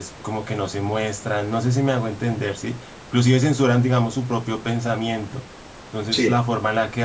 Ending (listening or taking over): listening